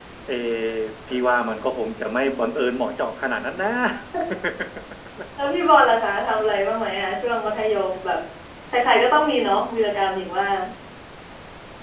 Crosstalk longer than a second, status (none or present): none